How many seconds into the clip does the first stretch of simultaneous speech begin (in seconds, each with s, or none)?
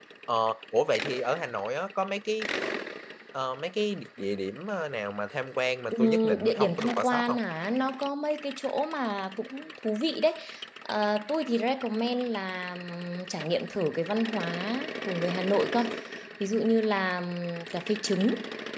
5.9 s